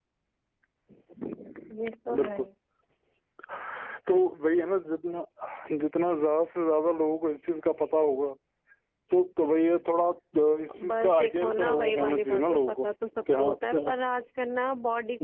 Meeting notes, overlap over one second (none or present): present